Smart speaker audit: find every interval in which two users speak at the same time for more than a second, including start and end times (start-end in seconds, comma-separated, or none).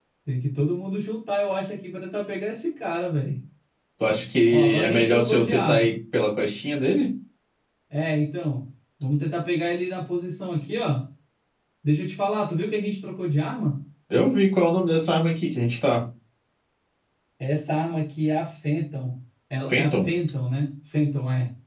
4.5-6.0